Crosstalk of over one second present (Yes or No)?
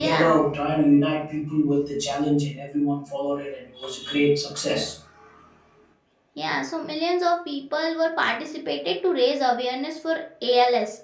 No